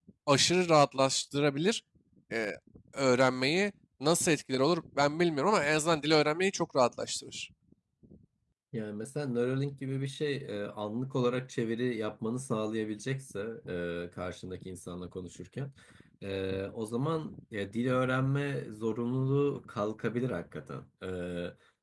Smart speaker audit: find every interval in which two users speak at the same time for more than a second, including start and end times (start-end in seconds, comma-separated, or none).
none